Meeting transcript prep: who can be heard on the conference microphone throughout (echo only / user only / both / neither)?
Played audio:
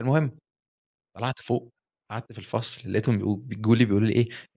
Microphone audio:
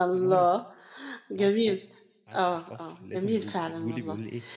both